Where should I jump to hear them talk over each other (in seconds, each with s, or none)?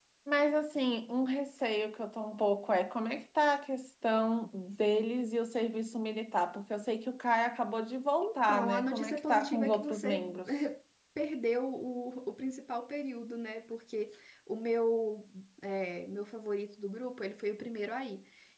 8.2 s